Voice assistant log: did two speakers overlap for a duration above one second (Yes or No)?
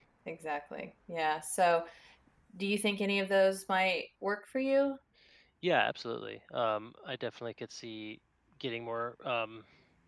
No